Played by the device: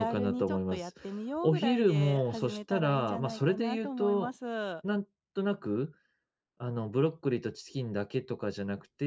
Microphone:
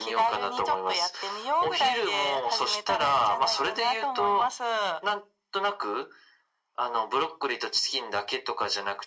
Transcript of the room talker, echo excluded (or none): none